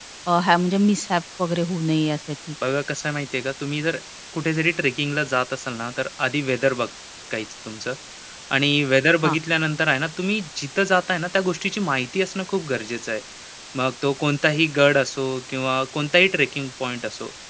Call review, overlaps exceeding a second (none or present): none